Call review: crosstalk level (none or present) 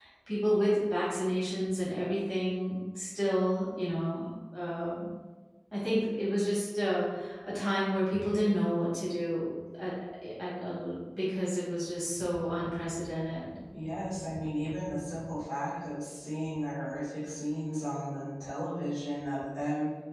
none